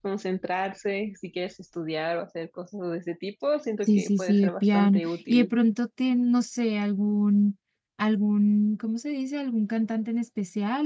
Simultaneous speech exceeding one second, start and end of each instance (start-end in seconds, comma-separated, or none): 3.8-5.5